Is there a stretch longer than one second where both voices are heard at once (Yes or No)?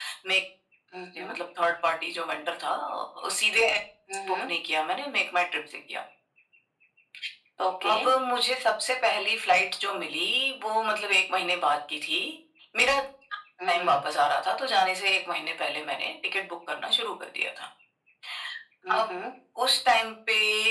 No